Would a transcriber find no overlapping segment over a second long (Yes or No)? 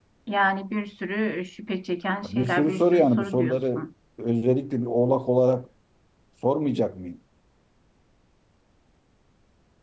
No